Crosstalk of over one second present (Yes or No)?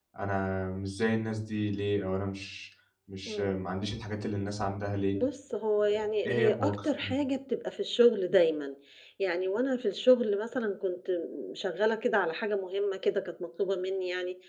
Yes